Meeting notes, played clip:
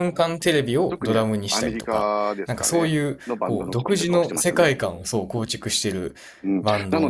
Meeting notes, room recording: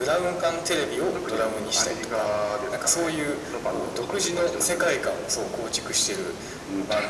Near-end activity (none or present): none